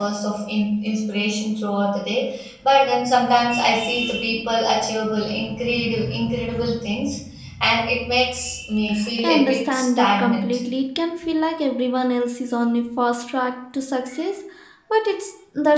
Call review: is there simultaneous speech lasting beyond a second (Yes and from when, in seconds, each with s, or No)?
Yes, from 9.2 s